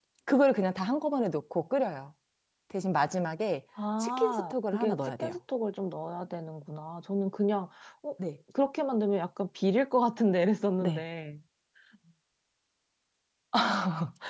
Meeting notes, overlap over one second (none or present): present